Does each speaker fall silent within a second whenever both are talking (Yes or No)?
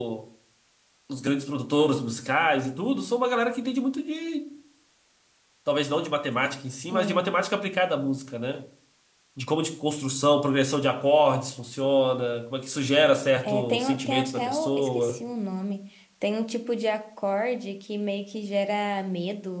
No